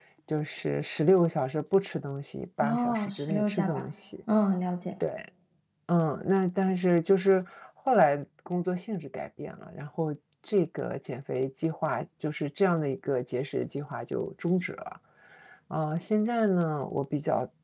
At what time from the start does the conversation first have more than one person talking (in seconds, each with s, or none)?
2.6 s